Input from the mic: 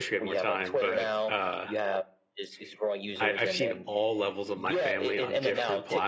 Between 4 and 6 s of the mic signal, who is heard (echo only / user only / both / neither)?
both